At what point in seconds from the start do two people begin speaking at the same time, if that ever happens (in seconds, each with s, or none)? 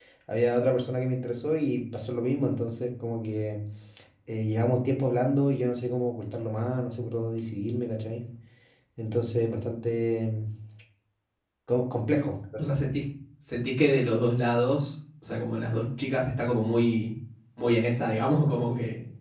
none